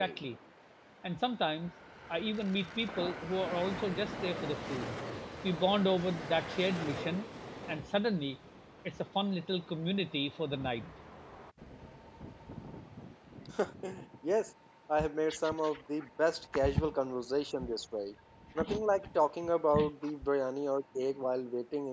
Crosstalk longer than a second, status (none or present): none